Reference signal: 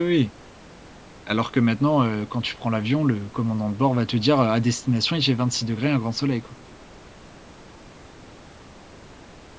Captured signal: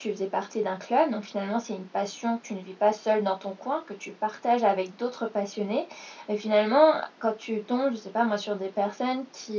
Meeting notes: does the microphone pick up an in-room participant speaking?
Yes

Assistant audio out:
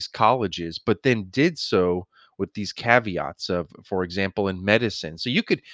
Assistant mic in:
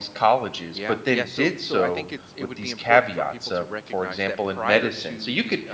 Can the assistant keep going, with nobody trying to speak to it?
No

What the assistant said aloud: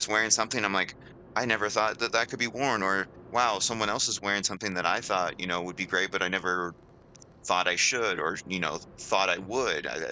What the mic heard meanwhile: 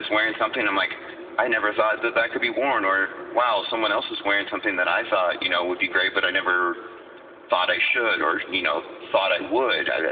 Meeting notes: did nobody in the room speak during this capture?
Yes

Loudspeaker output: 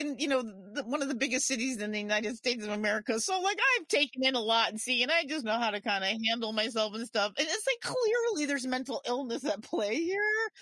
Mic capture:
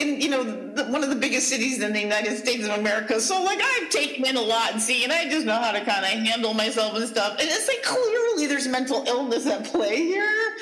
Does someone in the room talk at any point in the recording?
No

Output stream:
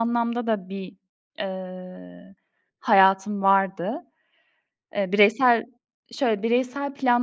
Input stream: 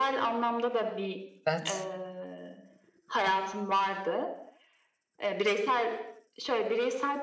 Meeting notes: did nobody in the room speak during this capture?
No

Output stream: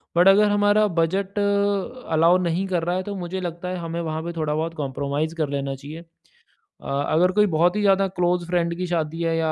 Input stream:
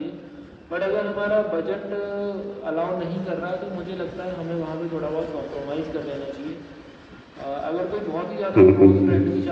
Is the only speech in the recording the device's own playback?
No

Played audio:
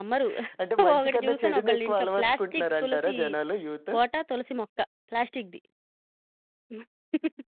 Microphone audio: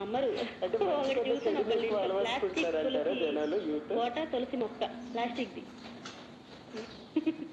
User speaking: No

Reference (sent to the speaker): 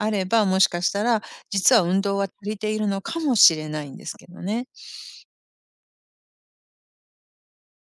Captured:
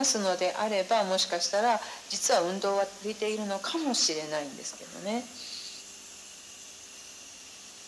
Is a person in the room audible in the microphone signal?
No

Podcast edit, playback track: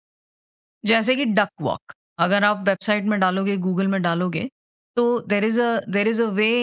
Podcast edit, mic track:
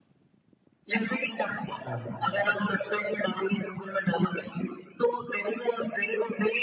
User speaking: Yes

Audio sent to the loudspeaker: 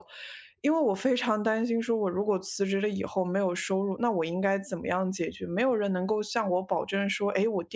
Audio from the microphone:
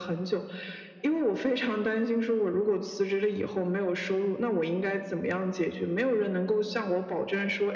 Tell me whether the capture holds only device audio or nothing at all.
Yes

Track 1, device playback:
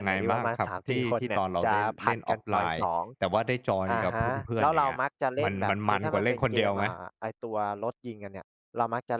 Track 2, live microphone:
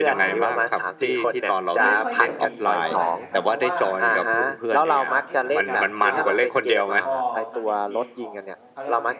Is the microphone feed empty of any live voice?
No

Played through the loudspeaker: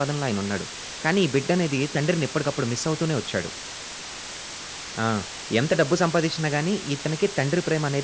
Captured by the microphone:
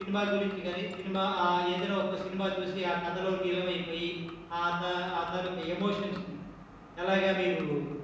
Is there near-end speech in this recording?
Yes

